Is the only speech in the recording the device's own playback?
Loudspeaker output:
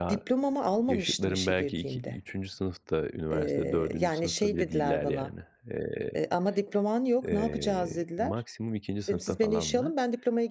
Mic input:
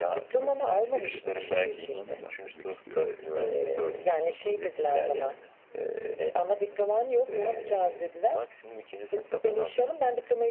No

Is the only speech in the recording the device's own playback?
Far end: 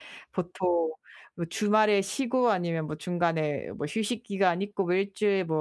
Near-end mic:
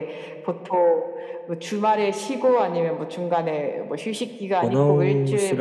No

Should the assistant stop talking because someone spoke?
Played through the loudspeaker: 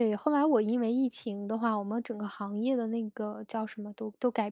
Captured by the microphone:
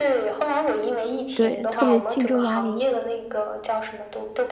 Yes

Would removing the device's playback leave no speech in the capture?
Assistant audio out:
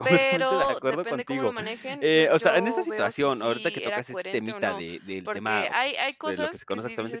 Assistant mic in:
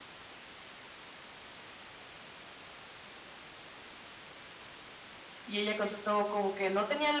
No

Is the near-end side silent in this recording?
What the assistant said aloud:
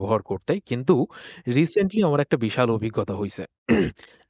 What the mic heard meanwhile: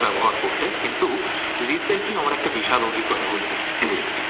Yes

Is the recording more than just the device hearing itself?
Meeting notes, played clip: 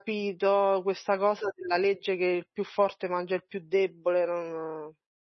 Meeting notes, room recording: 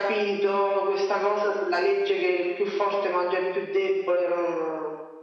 No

